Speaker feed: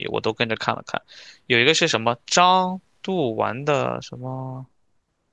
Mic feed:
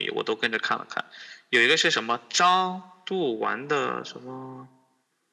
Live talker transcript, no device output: none

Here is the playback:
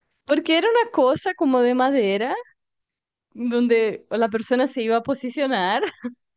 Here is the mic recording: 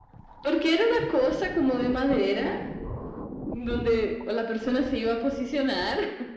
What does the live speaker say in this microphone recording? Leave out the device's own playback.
none

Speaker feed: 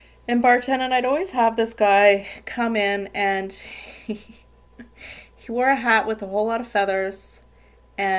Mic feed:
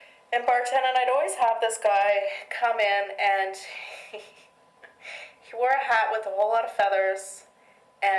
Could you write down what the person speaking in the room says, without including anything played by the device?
none

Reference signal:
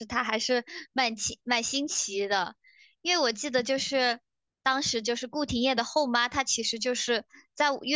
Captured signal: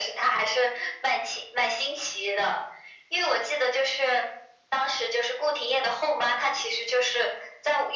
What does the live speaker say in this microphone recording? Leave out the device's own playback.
none

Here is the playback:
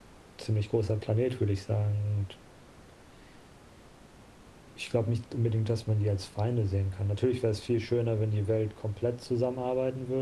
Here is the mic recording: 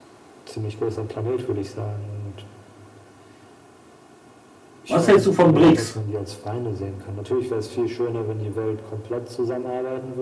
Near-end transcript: Was hältst du von BRICS?

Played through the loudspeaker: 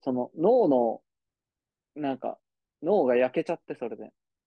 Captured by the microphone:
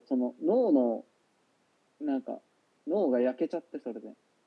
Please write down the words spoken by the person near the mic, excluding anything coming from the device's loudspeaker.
none

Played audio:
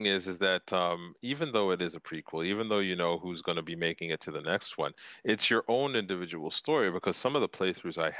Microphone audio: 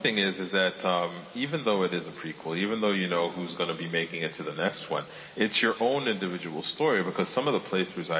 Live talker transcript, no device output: none

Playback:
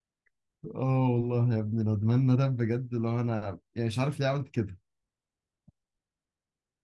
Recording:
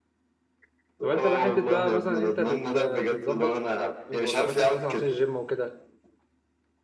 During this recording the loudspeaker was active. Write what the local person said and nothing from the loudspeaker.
طب انت بقى حته بقى مثلا انت بت بتظبط وجباتك مثلا عشان الجيم وكده

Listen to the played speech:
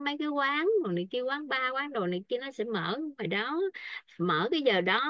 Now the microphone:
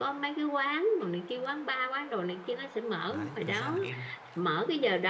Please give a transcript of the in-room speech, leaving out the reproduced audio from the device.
đấy, thật ra là em

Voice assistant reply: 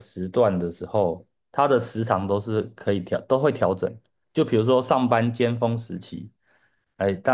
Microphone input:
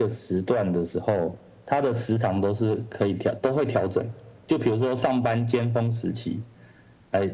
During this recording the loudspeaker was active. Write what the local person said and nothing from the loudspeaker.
none

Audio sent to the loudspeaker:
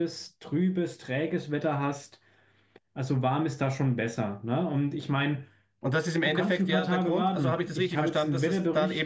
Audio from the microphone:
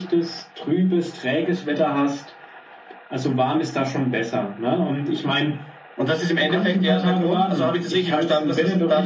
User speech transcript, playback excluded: none

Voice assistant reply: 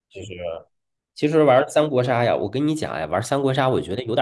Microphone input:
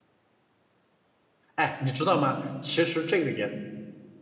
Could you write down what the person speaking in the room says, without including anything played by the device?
哎，你知道吗？其实这个也

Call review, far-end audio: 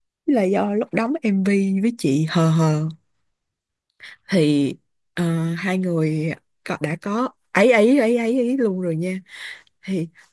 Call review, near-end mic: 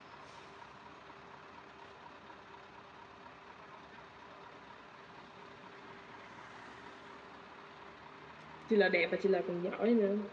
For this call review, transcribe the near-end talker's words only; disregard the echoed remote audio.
chị L đẹp và chị L còn giỏi nữa

